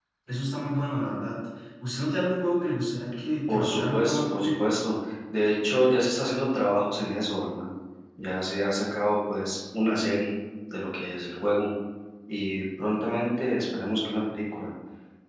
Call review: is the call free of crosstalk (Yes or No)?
No